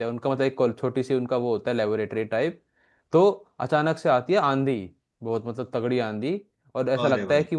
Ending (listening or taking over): listening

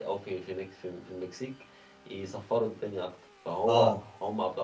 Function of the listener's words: listening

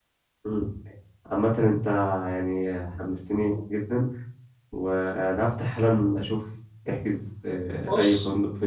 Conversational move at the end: taking over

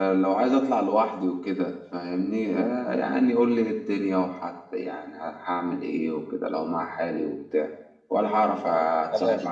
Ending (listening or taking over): listening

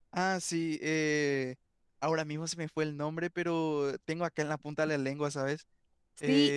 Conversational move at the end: taking over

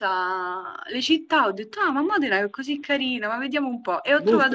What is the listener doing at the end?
listening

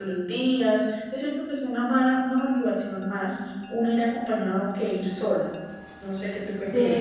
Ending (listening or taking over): taking over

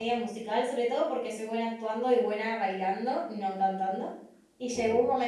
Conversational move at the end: listening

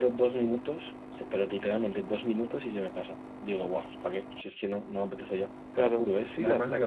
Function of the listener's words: taking over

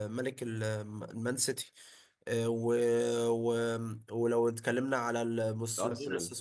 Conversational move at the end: listening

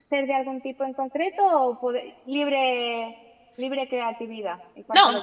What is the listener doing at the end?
taking over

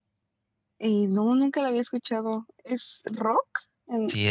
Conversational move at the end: taking over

